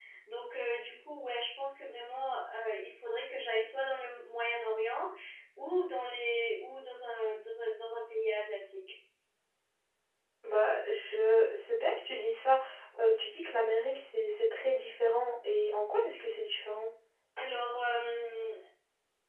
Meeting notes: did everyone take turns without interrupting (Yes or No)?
Yes